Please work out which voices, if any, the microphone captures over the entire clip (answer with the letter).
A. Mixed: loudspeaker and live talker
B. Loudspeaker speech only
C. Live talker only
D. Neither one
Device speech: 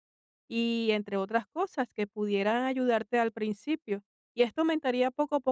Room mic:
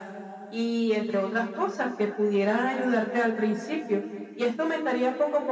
B